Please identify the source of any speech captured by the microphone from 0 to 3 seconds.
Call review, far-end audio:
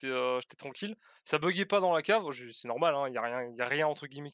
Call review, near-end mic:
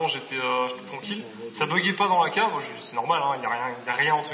both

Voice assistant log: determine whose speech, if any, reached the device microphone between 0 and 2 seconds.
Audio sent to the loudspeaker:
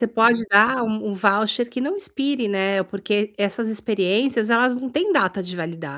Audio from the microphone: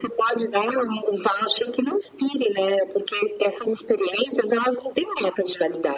echo only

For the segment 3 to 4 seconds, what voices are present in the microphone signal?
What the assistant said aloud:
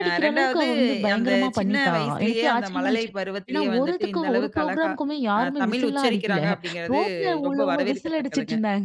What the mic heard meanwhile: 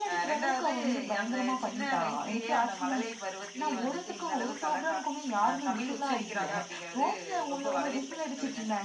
echo only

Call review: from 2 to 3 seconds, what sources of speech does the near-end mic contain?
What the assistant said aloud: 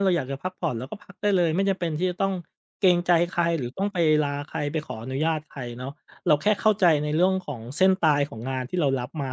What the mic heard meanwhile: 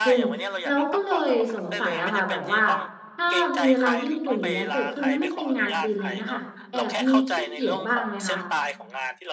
both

